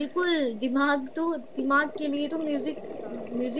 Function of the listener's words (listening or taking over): listening